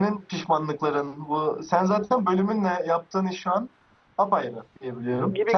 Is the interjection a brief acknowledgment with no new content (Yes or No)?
No